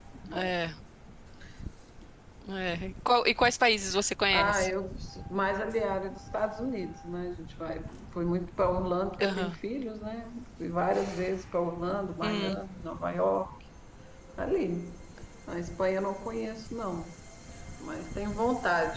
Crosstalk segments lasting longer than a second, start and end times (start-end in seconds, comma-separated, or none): none